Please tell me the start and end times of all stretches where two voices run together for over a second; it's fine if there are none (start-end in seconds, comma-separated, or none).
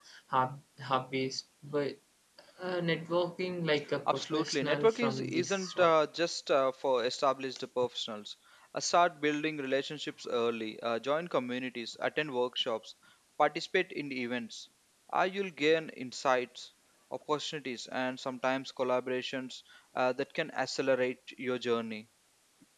4.1-5.9